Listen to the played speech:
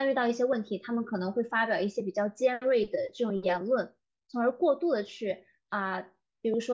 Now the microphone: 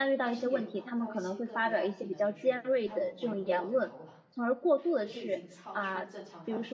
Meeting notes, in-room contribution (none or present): present